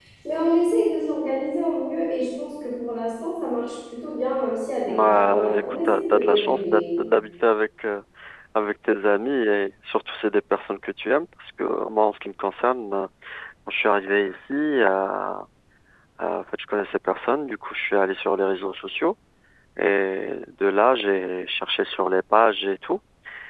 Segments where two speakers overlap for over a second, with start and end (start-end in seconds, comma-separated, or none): 4.9-6.8